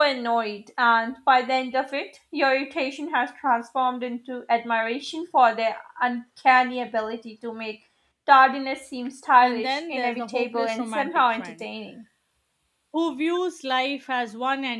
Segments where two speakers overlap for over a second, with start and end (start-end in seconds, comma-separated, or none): 9.4-11.6